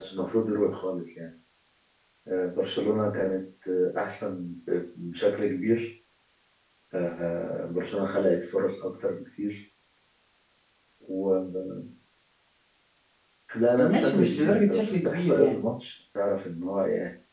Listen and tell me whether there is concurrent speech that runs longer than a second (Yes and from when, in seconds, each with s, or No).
Yes, from 13.8 s